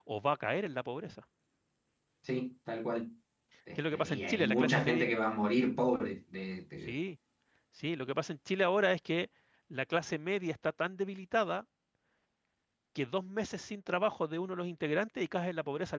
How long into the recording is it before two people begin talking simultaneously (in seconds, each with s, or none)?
3.8 s